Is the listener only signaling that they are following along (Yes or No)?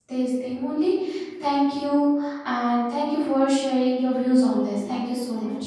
No